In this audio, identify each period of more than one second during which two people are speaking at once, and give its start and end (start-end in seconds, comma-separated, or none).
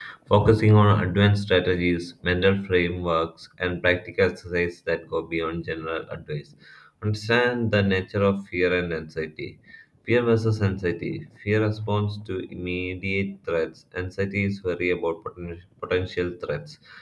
none